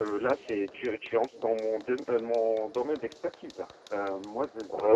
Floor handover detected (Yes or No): No